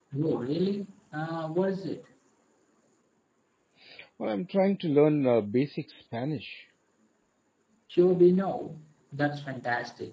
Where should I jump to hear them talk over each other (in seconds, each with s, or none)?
none